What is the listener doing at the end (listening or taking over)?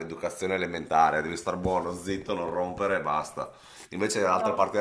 listening